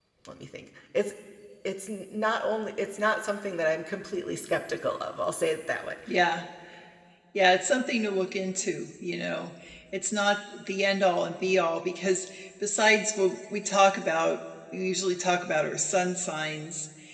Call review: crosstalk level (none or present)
none